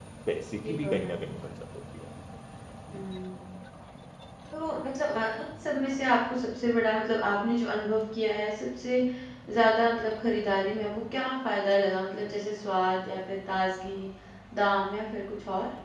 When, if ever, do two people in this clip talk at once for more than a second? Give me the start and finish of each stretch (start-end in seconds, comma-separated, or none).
none